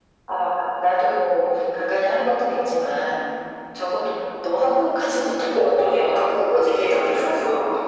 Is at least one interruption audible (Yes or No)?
Yes